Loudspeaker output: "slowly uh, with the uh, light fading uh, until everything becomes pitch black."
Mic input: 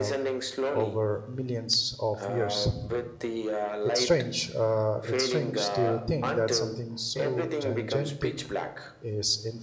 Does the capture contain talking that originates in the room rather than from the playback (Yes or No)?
Yes